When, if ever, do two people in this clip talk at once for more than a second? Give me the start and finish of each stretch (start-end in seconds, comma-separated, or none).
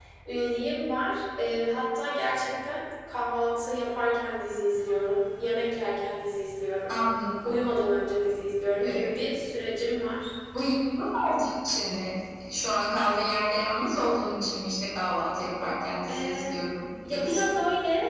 none